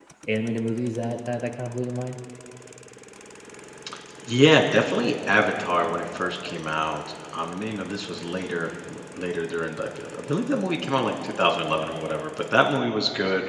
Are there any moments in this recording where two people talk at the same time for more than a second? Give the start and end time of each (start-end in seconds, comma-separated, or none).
none